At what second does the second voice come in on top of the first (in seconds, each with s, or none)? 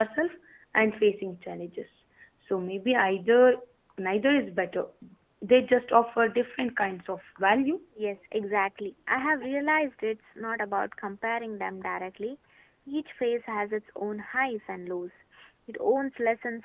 none